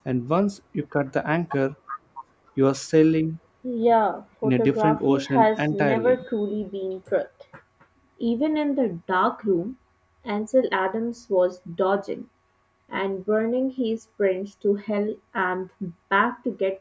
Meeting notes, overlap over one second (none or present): present